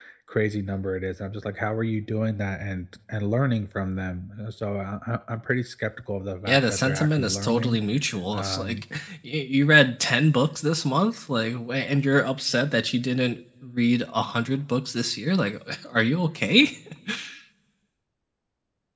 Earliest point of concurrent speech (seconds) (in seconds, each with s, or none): 6.5 s